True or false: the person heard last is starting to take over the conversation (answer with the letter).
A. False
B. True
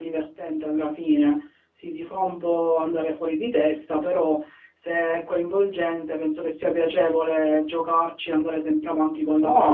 B